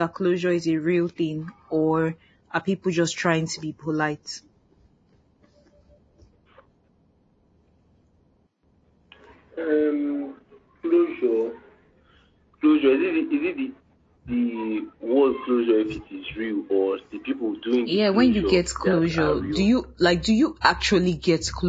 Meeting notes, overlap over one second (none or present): present